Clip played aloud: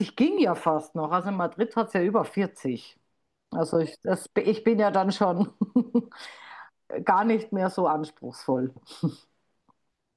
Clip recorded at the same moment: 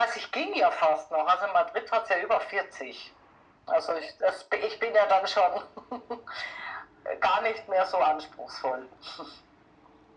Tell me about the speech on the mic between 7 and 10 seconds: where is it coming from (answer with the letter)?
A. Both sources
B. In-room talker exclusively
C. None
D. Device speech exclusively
D